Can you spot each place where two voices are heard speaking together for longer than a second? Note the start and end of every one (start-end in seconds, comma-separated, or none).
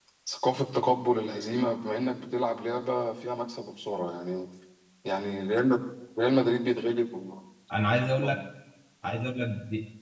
none